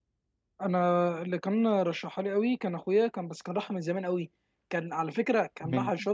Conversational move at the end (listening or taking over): listening